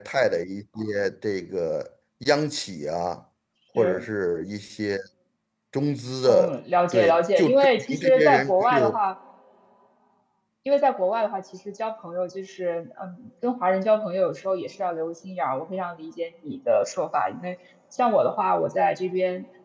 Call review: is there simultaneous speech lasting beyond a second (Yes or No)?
Yes